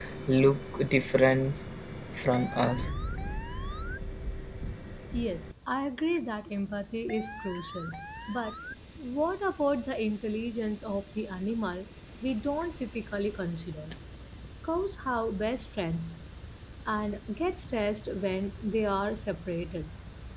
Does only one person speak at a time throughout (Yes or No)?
Yes